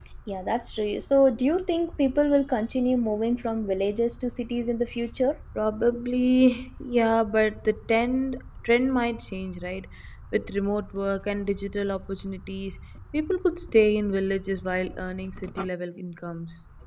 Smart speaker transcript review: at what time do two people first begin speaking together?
none

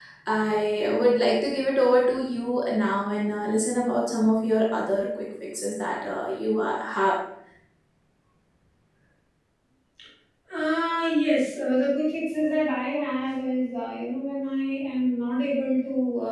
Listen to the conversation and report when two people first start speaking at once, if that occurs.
none

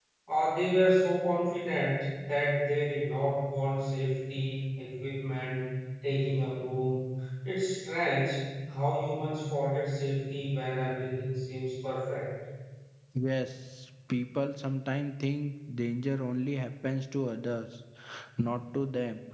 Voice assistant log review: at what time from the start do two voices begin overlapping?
none

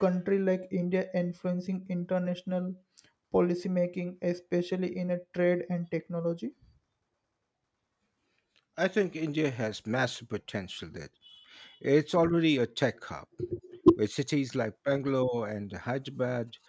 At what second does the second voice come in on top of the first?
none

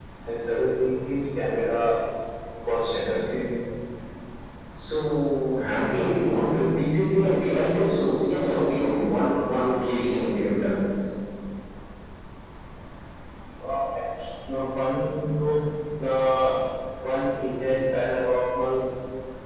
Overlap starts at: none

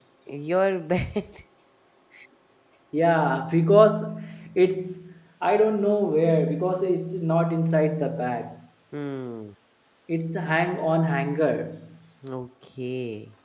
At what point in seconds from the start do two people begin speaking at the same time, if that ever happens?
none

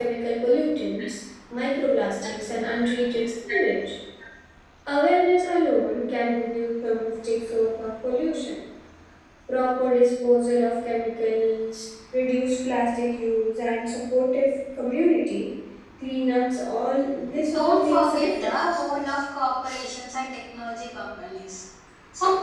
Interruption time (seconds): 17.3 s

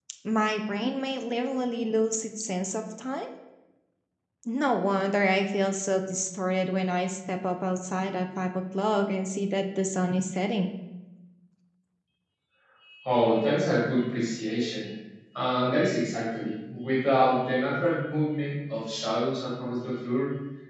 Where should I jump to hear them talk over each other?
none

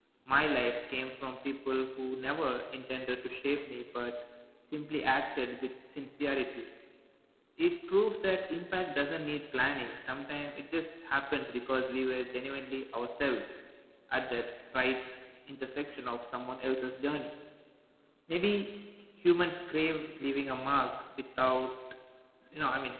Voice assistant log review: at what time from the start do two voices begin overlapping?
none

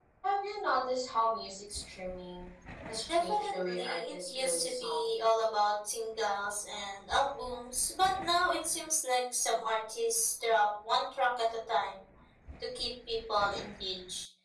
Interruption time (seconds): 3.1 s

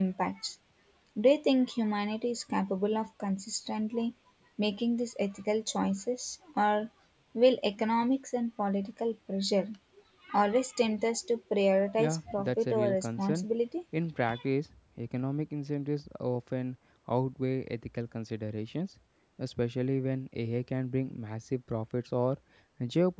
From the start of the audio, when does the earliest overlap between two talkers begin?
12.0 s

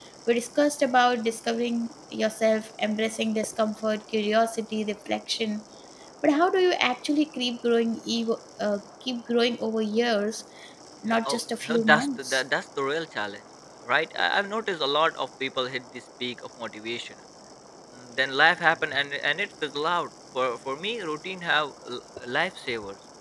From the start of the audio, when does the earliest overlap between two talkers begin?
11.1 s

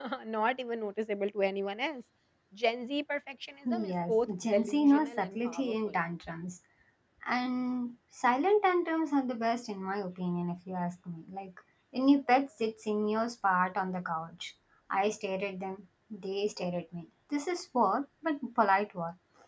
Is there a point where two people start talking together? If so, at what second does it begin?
3.6 s

